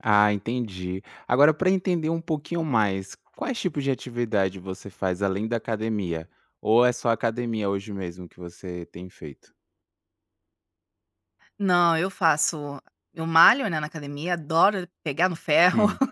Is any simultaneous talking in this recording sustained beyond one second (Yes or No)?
No